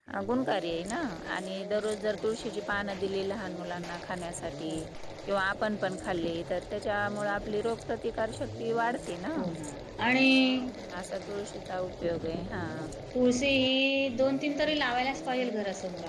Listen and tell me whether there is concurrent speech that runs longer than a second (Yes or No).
No